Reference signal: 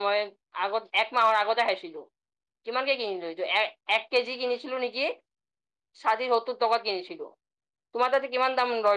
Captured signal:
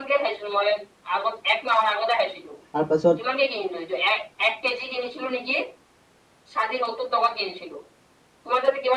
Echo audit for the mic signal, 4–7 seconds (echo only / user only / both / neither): echo only